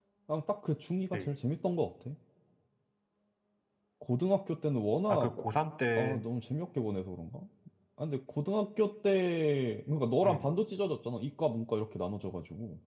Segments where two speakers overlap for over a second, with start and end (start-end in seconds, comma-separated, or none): none